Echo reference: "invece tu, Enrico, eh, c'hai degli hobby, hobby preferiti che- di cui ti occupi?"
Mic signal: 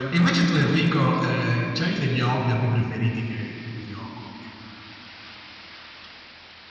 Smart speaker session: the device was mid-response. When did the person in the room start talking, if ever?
none

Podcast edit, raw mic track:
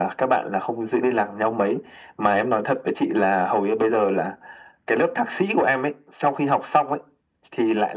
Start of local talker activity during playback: none

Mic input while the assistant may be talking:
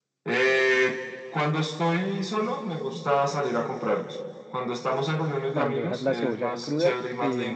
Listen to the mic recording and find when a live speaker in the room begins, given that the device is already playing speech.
5.5 s

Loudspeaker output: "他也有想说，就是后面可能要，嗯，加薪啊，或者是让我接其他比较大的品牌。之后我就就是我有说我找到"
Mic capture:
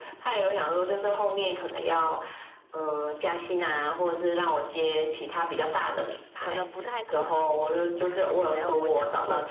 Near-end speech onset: 5.8 s

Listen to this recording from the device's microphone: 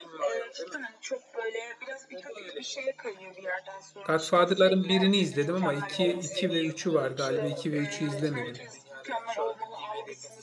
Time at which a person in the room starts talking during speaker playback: 4.0 s

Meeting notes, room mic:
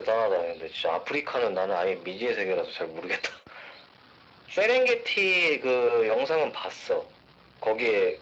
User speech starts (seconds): none

